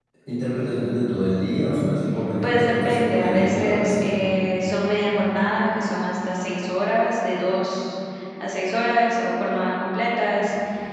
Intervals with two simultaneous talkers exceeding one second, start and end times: 2.4-4.1

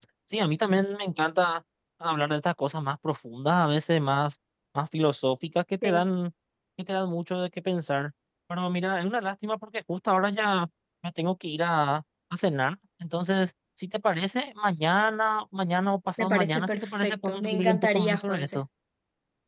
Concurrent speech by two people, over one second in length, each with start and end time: 16.2-18.6

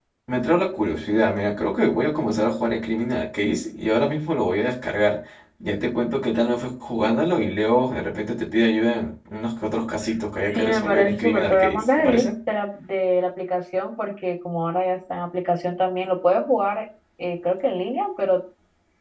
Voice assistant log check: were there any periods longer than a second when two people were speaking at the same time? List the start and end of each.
10.5-12.3

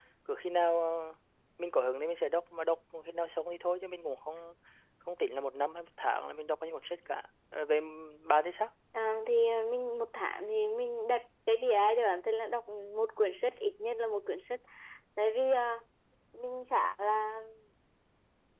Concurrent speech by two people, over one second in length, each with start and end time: none

